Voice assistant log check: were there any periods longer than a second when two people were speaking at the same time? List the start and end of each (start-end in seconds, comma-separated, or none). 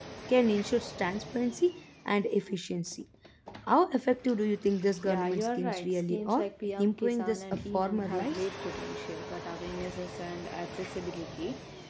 5.0-8.4